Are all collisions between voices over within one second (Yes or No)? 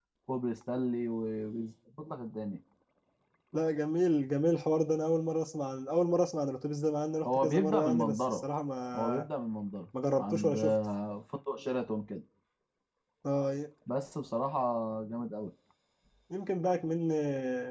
No